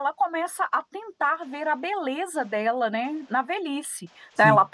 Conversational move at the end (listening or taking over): listening